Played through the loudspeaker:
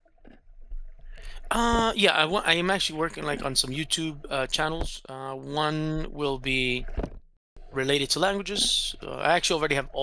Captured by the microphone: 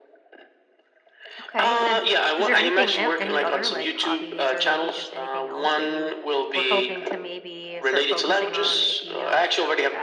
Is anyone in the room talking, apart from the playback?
Yes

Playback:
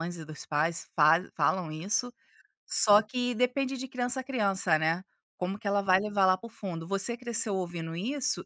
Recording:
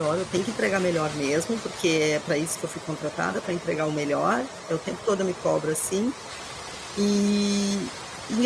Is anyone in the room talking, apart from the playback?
Yes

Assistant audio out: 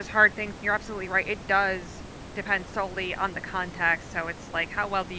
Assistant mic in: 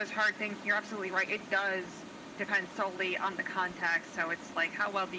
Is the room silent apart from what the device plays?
Yes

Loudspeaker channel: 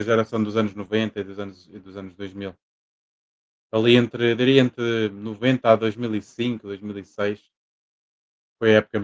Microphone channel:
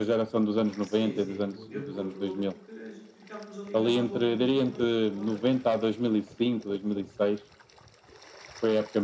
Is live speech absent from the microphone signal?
No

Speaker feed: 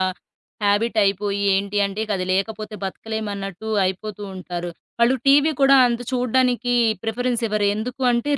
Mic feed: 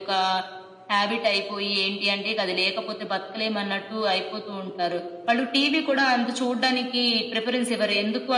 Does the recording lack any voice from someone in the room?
Yes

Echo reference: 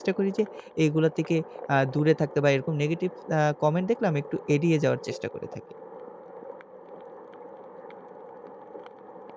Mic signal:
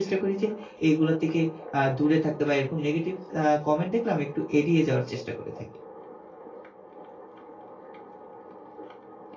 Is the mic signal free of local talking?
Yes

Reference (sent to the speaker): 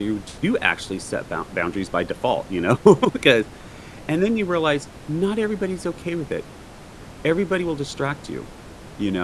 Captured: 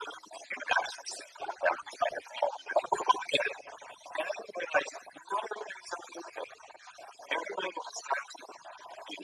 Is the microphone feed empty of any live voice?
Yes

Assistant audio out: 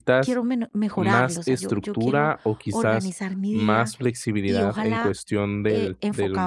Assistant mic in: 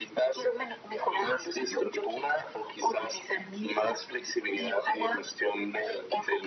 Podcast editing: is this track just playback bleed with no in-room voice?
Yes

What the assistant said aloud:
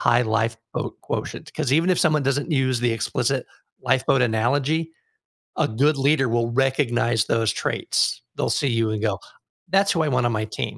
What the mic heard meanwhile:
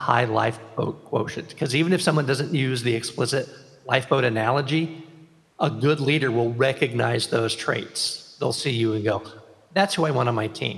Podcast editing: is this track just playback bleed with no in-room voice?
Yes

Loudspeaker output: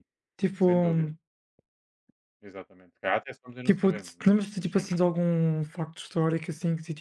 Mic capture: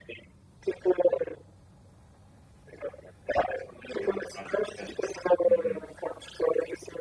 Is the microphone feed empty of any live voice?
No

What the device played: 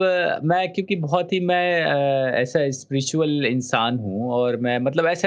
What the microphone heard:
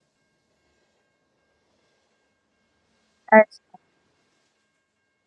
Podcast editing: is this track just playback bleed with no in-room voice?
No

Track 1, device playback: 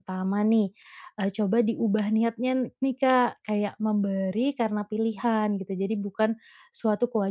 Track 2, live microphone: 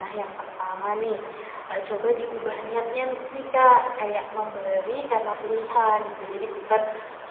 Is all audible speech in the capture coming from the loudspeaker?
Yes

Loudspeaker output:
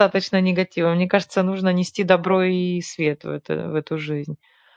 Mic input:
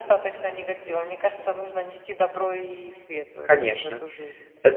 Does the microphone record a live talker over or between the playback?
Yes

